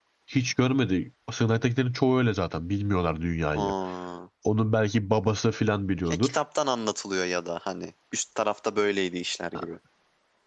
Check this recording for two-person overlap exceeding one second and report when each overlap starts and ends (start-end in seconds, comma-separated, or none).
none